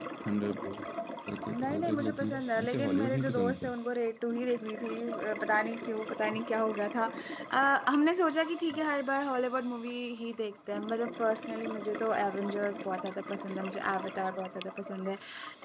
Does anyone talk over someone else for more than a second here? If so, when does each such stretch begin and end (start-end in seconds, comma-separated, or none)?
1.5-3.7